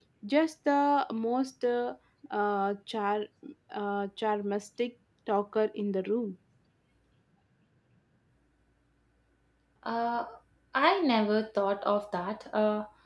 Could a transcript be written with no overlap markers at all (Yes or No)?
Yes